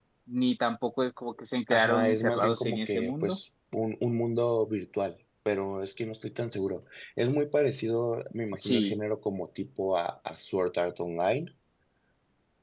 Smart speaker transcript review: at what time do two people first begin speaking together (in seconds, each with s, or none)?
1.7 s